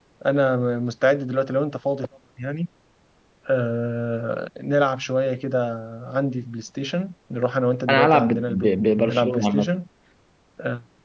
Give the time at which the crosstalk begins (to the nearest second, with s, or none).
8 s